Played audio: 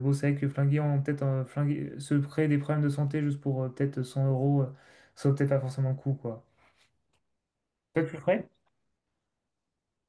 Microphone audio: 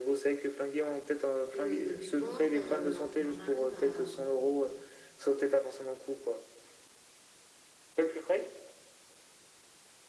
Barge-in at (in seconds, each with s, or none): 1.5 s